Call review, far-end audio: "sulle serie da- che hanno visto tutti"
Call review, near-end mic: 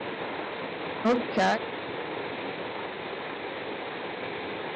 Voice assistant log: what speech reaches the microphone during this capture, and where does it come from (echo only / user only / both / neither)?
user only